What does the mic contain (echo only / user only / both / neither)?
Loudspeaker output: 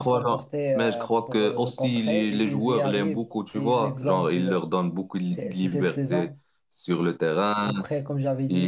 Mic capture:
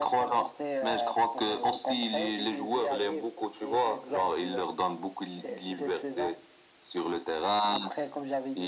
echo only